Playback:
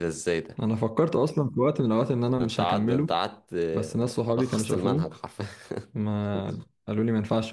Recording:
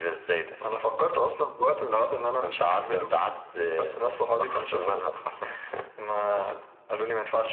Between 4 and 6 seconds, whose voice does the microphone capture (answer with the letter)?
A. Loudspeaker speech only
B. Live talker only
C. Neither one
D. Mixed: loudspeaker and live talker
A